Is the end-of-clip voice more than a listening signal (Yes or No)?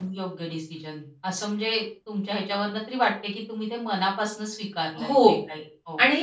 Yes